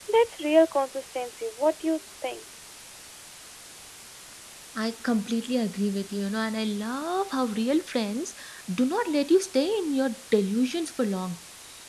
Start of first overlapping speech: none

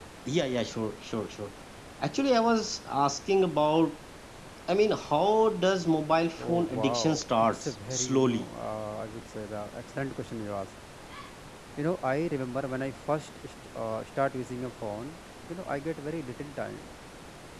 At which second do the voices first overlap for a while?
6.4 s

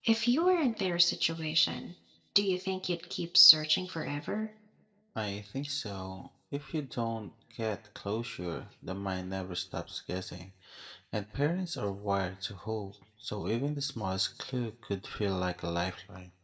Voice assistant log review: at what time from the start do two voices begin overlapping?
none

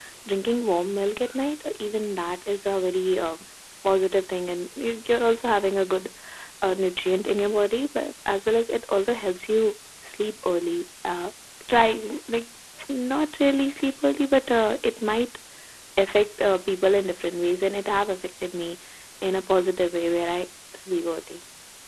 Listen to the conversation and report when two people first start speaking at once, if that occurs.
none

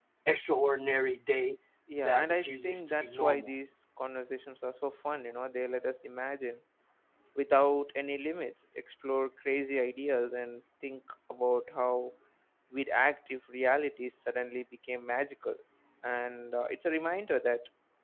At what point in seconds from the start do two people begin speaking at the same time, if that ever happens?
2.0 s

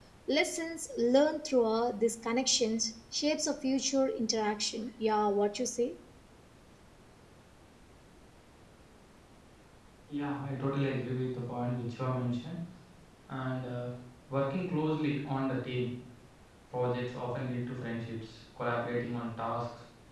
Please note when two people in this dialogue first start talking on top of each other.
none

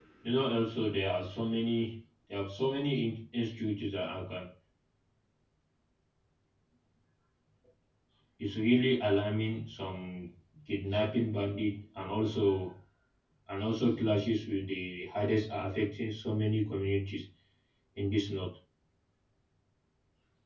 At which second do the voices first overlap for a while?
none

